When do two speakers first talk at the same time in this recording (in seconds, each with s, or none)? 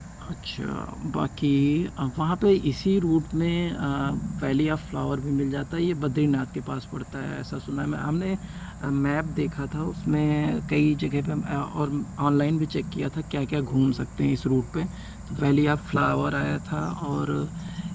none